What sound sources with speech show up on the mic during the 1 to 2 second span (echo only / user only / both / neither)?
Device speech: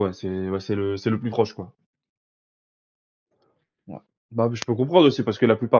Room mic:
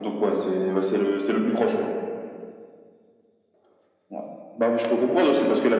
echo only